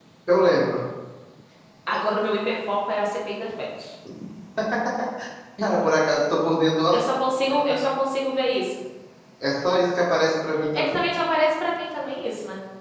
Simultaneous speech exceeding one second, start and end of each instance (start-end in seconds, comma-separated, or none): none